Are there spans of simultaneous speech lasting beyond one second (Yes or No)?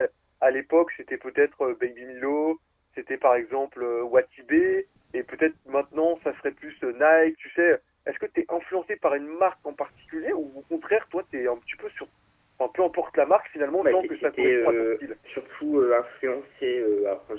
Yes